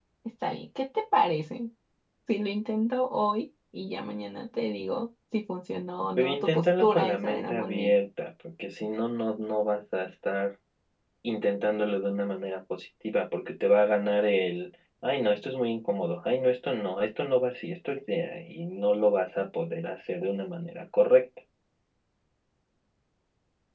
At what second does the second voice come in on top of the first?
6.2 s

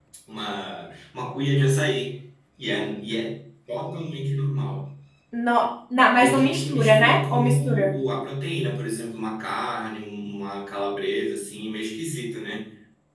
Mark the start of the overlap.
6.2 s

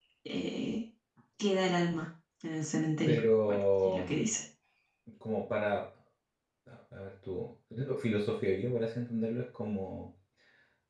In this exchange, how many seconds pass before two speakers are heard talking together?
3.0 s

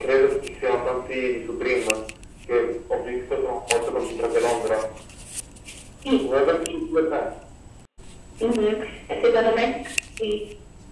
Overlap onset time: none

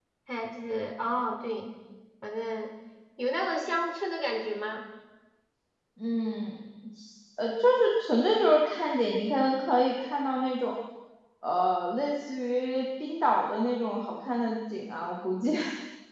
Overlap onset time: none

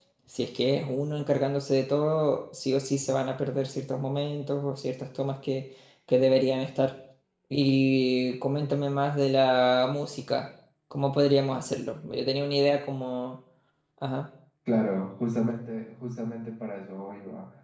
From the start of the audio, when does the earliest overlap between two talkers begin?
none

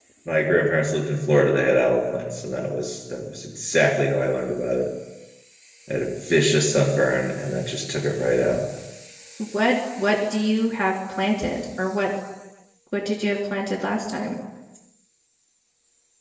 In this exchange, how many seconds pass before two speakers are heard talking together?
none

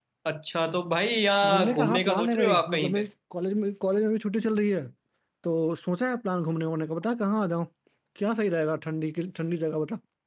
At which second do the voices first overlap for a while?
1.4 s

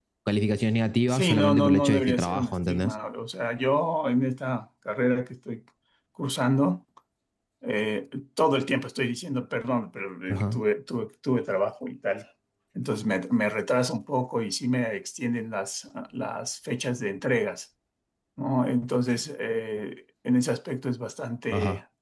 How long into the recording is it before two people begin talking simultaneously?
1.1 s

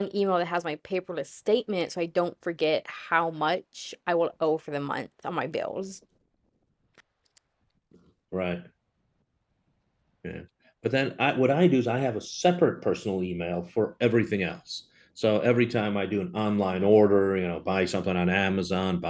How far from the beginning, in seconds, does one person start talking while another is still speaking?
none

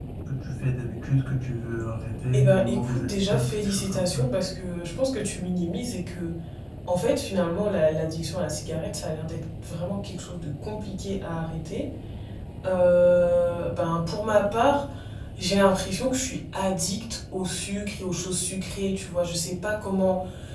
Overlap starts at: 2.3 s

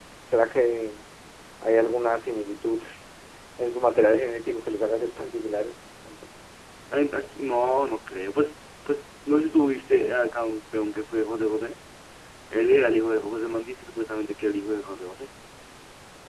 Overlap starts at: none

